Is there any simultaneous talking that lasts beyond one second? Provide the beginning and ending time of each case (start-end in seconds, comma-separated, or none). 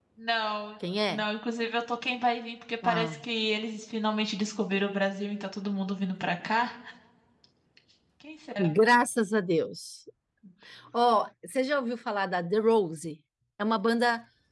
none